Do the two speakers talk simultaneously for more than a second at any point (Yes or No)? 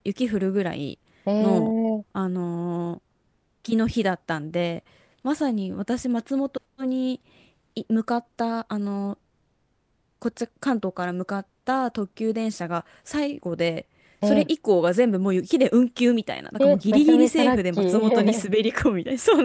Yes